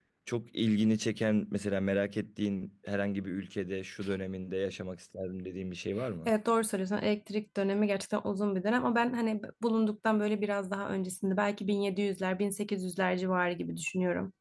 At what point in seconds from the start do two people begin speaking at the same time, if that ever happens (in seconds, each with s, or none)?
none